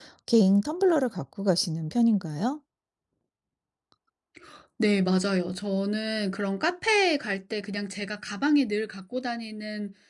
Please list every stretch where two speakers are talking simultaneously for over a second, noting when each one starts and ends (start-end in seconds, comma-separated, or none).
none